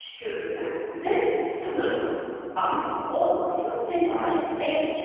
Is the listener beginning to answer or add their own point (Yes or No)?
No